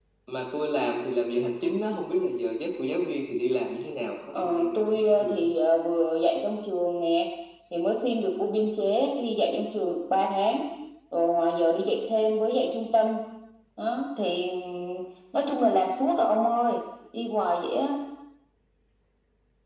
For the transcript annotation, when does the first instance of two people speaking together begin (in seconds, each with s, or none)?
4.3 s